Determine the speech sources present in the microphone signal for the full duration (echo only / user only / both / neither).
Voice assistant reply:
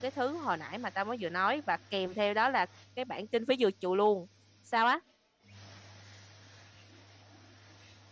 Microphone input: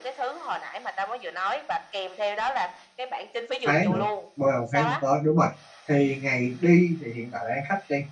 both